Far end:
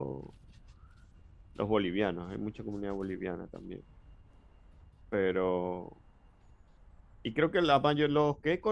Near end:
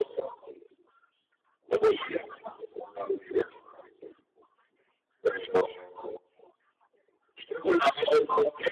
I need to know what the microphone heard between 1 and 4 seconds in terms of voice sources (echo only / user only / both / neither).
echo only